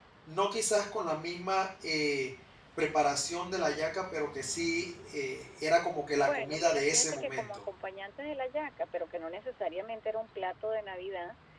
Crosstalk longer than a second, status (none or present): present